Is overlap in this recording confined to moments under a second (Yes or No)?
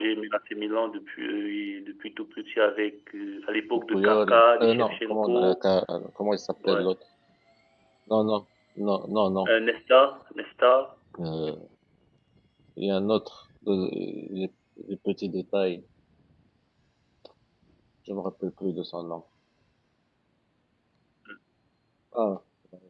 No